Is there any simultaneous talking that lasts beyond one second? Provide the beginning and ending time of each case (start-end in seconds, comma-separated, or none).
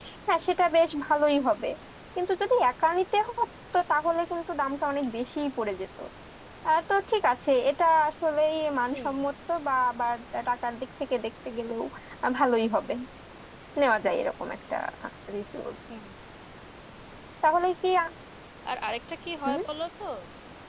none